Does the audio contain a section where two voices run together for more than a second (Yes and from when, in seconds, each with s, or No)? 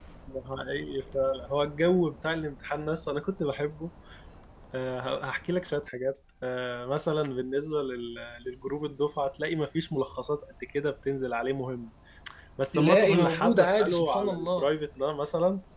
Yes, from 12.7 s